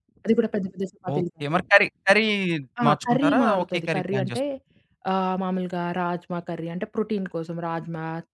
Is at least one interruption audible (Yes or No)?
Yes